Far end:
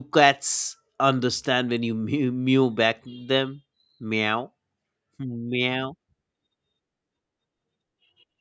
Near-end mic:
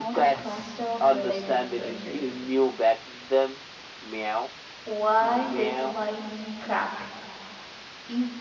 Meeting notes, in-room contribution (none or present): present